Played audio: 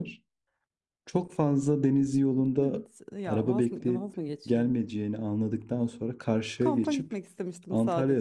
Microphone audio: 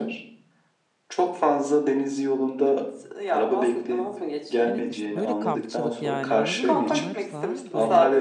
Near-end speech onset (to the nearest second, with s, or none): 5 s